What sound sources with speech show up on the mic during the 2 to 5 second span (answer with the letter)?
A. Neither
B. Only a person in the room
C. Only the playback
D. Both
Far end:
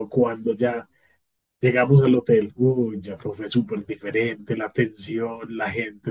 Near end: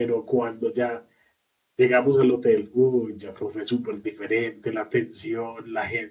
C